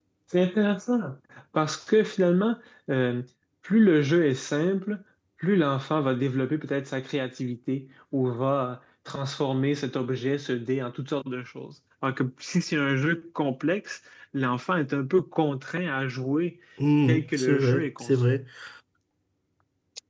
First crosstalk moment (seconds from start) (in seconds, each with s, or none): 17.1 s